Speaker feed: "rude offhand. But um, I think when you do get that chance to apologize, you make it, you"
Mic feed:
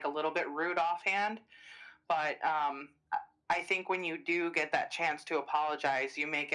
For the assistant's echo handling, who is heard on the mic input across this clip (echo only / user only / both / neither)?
echo only